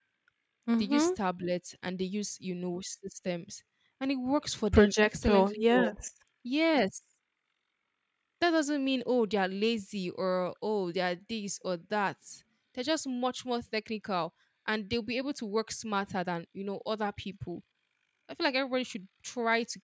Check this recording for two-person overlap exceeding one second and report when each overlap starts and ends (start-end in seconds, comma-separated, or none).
4.7-6.0